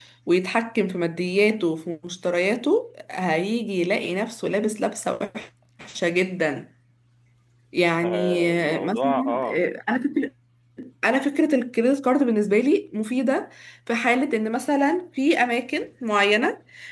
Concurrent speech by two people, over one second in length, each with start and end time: 8.0-9.6

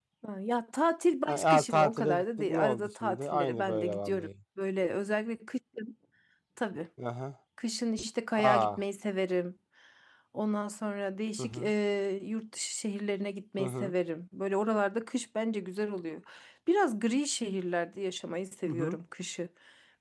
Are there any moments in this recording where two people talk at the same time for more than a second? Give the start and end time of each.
1.3-4.3

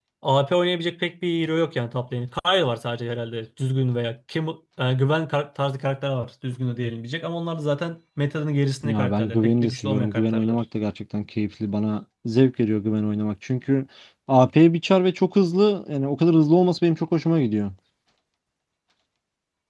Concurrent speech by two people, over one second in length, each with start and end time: 8.8-10.6

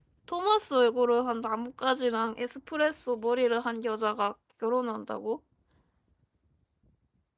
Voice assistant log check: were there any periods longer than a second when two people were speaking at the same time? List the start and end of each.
none

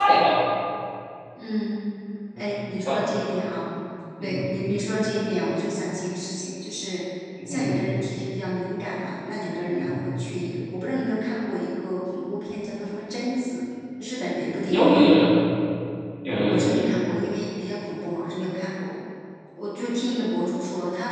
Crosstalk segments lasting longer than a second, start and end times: none

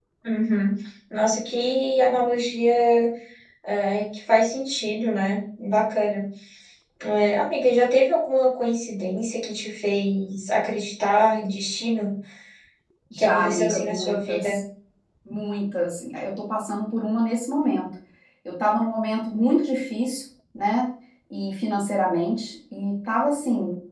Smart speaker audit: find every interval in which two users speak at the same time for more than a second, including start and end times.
13.2-14.6

